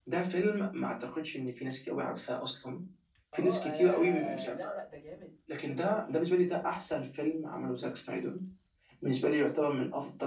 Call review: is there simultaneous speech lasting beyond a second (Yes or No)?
Yes